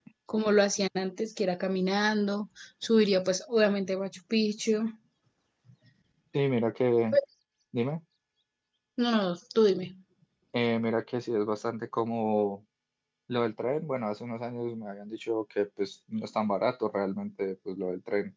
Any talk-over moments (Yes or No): No